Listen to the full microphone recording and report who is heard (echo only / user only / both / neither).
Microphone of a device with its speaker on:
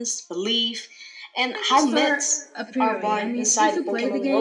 both